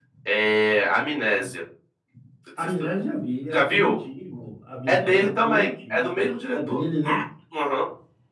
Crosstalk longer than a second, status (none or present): present